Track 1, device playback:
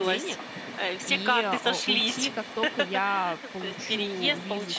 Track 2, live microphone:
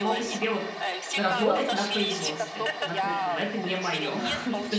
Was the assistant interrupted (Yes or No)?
Yes